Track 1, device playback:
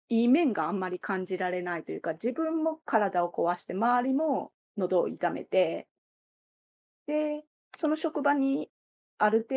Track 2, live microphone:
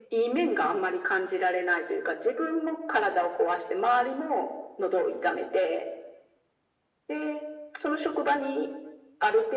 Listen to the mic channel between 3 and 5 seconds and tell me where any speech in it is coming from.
echo only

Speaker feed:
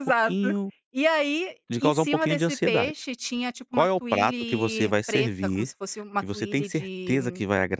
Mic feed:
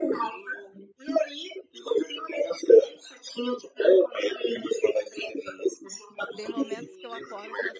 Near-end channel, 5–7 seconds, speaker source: both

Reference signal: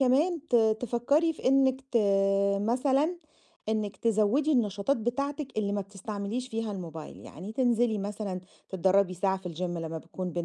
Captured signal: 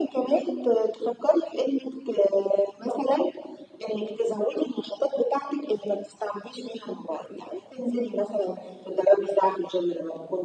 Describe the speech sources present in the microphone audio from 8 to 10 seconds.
echo only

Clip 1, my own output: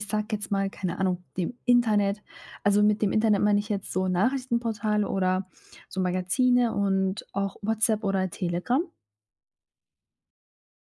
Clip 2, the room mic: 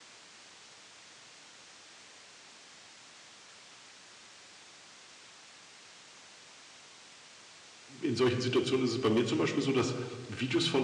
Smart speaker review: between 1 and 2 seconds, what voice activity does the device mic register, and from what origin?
neither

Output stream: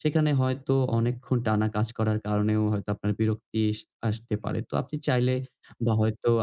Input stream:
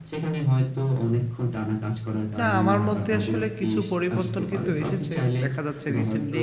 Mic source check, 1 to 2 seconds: echo only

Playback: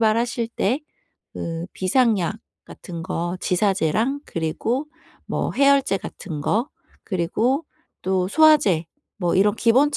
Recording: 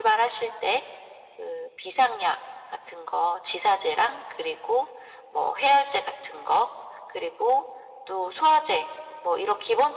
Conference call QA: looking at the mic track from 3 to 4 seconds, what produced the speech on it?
echo only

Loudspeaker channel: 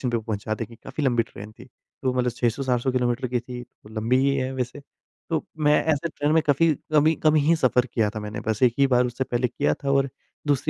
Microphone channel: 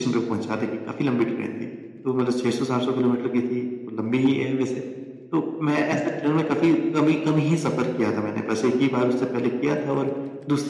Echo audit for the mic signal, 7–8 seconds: echo only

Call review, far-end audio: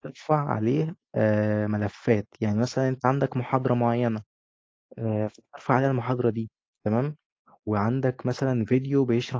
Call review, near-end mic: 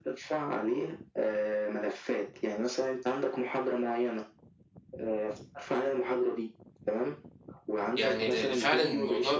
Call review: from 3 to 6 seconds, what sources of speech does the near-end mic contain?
echo only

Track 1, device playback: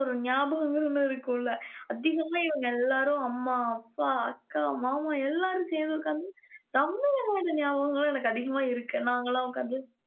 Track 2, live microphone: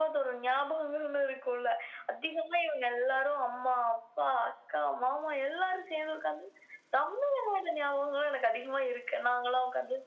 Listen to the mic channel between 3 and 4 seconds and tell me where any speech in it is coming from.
echo only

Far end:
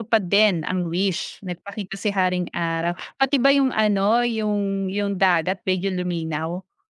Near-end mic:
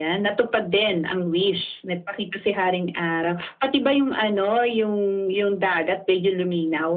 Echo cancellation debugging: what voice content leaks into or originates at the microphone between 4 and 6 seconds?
echo only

